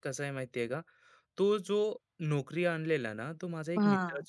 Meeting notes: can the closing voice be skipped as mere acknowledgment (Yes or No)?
Yes